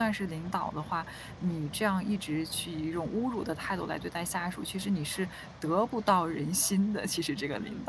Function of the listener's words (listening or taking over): taking over